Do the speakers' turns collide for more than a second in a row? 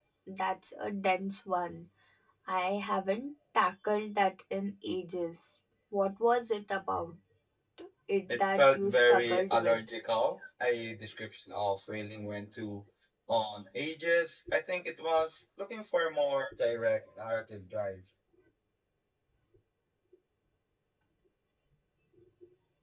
Yes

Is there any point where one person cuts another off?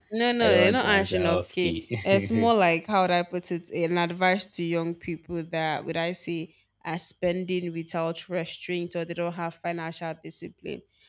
Yes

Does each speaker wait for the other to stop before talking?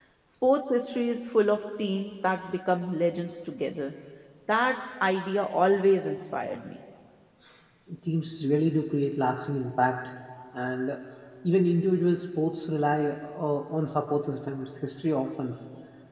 Yes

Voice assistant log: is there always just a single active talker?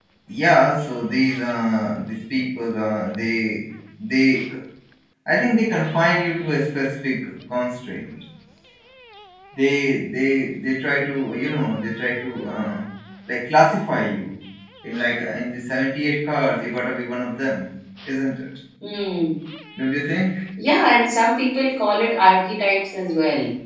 Yes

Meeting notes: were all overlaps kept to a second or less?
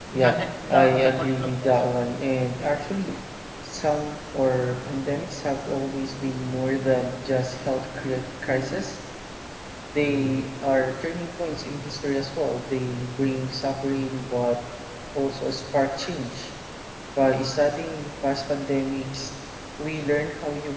No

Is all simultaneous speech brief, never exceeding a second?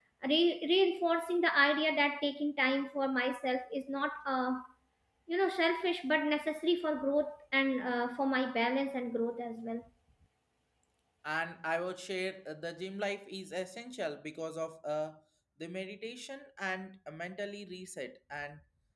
Yes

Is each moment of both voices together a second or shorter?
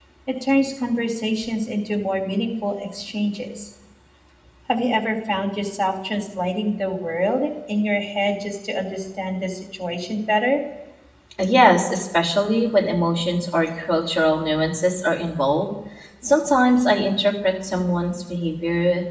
Yes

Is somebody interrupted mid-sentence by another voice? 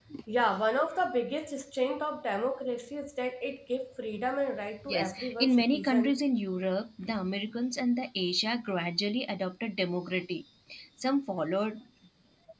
Yes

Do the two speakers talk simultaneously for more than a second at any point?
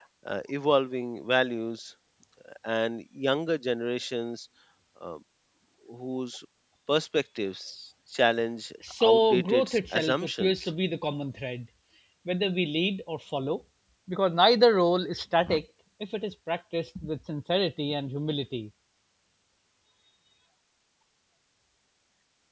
Yes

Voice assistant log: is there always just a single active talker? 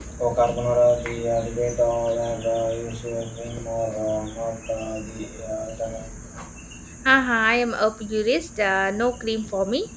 Yes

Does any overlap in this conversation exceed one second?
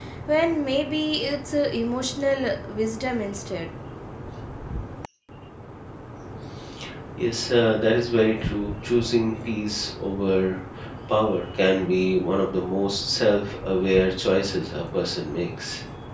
No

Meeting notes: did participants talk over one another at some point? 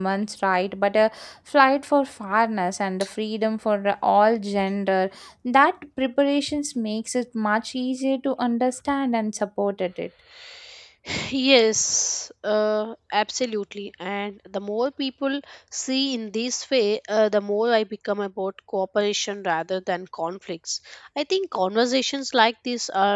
No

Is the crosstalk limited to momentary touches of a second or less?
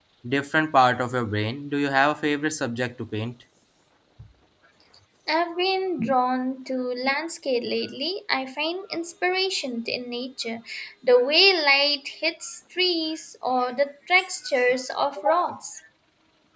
Yes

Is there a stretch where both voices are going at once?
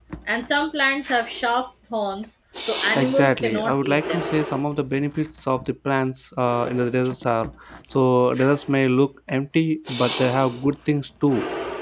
Yes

